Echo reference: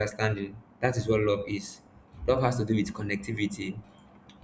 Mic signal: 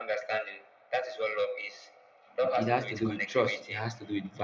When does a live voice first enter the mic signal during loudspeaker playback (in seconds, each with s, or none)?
2.4 s